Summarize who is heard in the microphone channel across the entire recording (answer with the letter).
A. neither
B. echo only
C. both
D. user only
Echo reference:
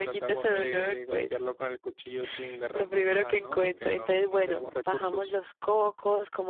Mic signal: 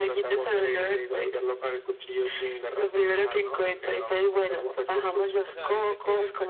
C